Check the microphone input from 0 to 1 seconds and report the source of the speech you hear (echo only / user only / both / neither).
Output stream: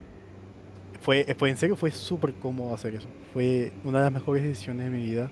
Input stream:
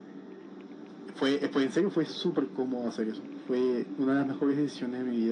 neither